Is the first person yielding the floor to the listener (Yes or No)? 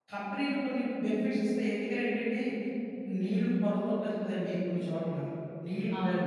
No